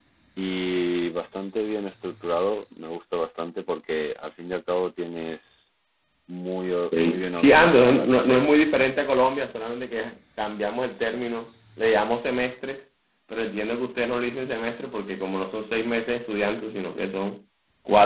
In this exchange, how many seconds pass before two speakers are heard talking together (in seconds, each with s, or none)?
6.9 s